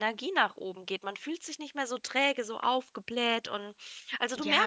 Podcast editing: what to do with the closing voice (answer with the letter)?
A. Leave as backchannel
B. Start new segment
B